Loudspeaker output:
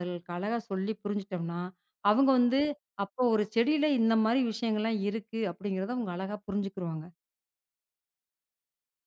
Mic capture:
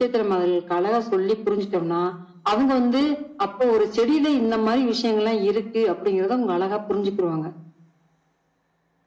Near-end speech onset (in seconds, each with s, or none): none